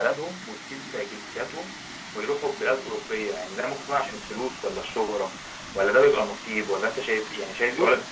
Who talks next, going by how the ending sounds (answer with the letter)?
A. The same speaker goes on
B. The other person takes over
A